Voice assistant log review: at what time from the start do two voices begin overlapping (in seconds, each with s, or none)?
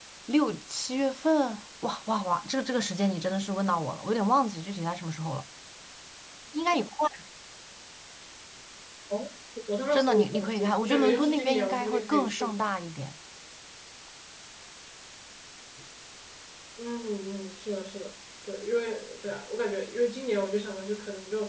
9.9 s